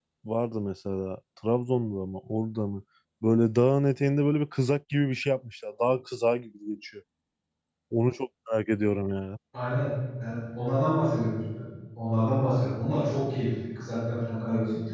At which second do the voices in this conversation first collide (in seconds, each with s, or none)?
none